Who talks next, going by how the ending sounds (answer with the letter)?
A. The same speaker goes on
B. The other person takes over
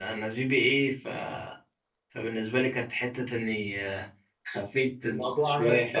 A